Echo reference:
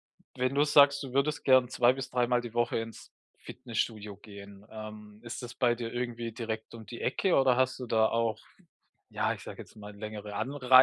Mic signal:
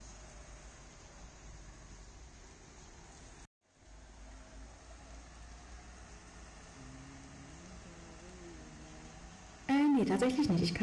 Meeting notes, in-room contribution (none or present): present